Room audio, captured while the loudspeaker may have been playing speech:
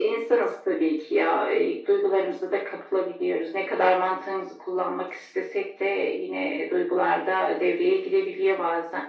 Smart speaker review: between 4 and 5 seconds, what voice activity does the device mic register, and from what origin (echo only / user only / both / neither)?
echo only